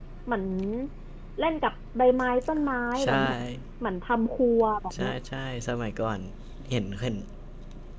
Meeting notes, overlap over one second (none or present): none